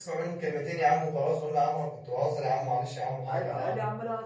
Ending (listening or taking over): taking over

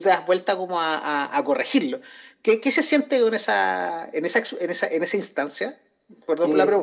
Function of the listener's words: taking over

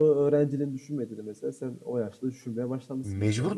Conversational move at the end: taking over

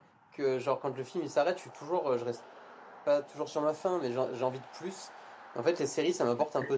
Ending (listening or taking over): listening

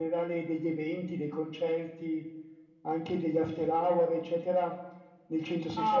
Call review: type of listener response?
taking over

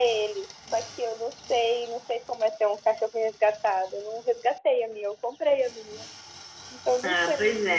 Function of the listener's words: taking over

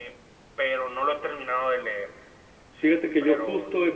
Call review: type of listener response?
taking over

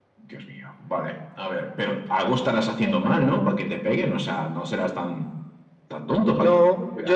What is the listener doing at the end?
taking over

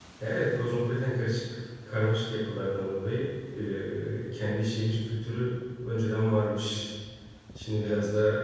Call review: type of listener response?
listening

